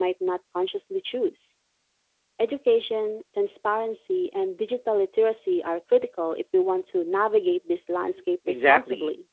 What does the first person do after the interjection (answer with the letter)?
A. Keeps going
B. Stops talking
B